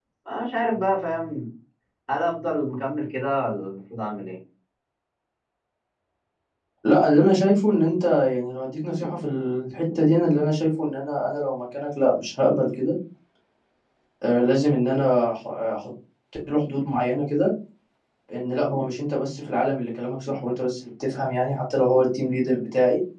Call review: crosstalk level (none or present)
none